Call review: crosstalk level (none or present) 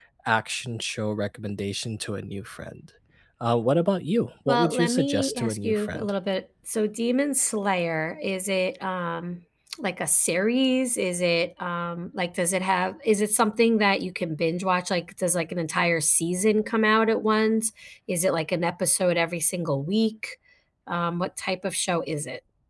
present